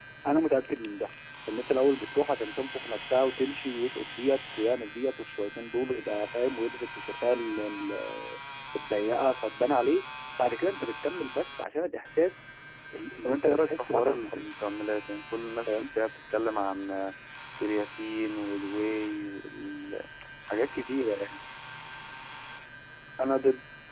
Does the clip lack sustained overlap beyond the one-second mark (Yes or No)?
No